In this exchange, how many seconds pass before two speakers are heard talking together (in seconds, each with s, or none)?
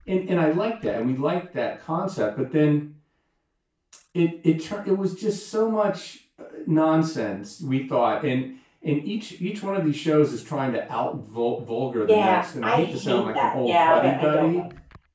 12.0 s